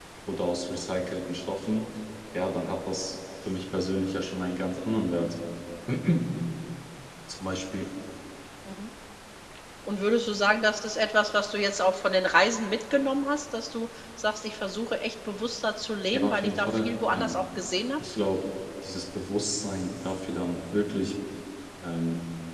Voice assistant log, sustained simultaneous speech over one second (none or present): present